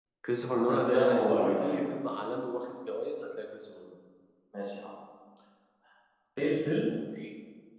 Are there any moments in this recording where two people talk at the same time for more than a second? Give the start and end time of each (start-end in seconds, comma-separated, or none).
0.7-1.9